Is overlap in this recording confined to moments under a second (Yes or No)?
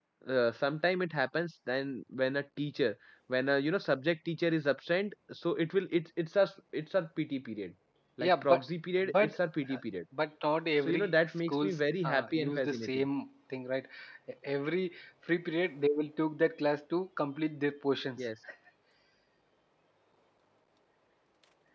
No